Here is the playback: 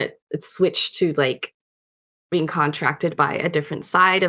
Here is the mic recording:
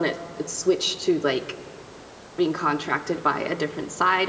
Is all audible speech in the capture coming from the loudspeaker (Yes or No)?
Yes